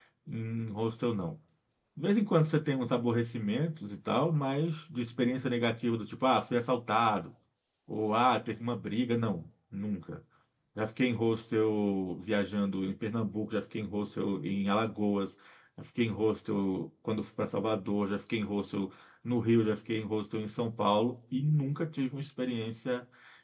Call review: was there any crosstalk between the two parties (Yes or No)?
No